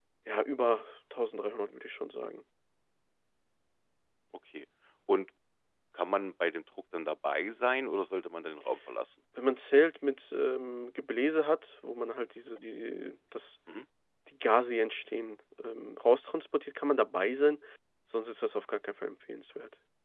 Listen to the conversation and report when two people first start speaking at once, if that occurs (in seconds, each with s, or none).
none